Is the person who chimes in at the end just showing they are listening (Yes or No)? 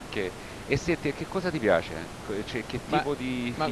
No